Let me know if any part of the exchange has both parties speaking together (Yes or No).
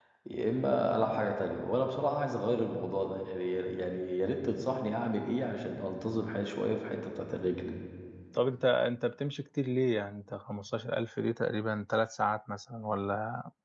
No